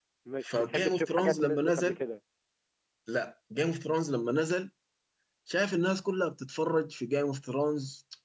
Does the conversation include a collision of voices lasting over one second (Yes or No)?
Yes